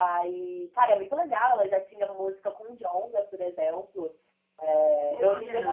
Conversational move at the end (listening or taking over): listening